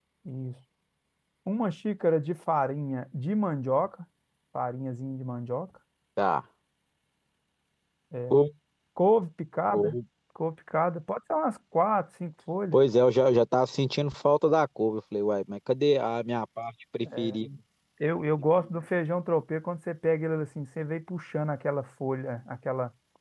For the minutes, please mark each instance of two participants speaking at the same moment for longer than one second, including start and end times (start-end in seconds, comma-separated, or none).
none